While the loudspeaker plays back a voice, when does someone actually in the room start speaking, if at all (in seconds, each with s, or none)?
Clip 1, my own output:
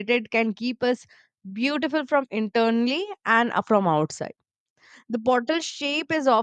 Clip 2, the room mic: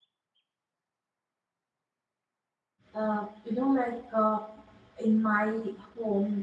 2.9 s